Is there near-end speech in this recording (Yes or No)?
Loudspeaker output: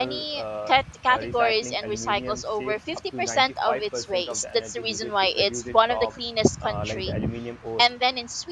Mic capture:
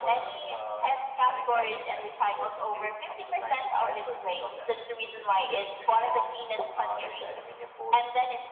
No